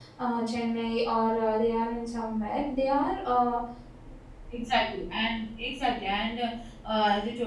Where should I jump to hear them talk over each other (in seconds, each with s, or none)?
none